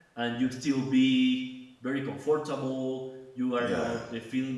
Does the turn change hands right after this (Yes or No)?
No